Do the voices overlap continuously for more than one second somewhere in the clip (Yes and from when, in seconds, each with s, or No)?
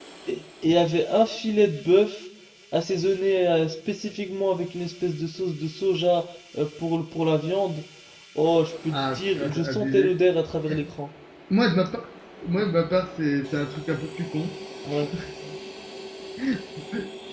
Yes, from 8.9 s